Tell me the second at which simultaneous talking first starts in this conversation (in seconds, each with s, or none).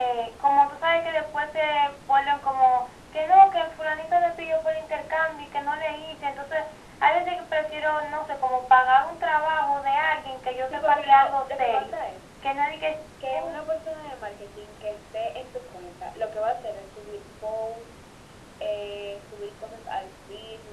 10.6 s